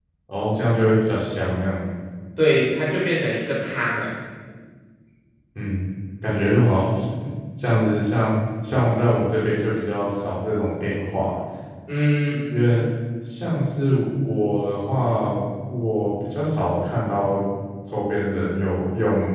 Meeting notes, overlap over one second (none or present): none